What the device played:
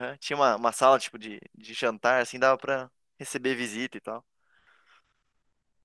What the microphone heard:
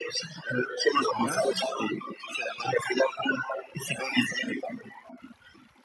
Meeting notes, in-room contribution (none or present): present